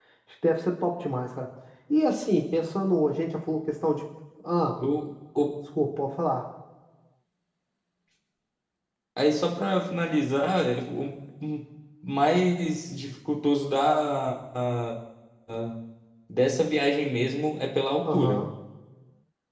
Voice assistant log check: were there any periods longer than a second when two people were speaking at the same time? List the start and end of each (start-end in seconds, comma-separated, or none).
none